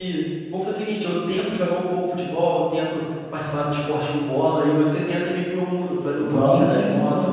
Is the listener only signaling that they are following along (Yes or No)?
No